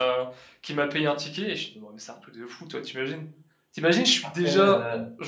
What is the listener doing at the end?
listening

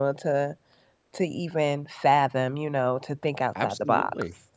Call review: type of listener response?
taking over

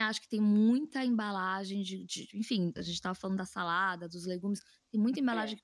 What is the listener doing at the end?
listening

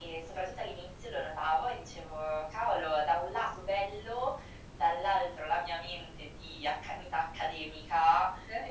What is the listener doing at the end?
listening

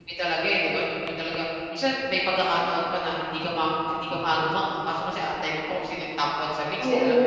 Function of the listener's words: taking over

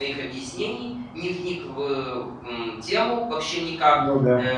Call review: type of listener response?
listening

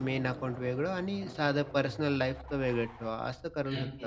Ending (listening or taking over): taking over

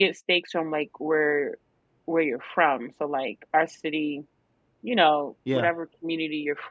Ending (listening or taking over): listening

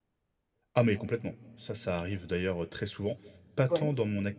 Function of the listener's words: listening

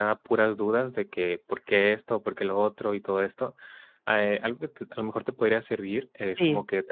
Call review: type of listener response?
listening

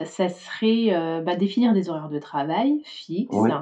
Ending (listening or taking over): listening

